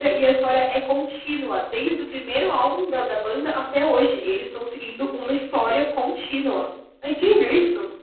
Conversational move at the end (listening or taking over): taking over